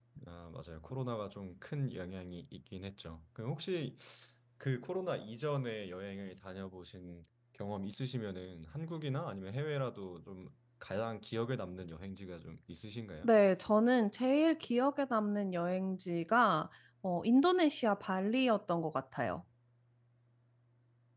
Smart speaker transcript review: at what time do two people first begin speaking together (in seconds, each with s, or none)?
none